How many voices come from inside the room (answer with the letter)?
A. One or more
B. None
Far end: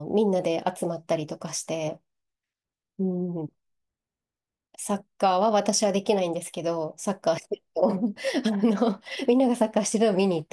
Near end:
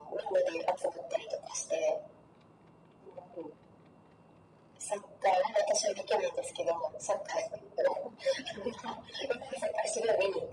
B